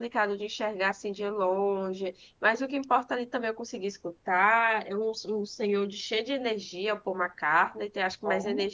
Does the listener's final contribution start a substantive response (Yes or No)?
No